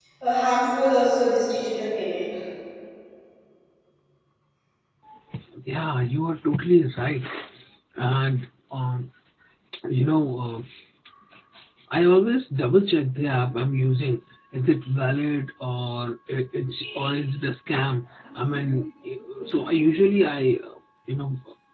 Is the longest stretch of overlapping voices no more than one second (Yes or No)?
Yes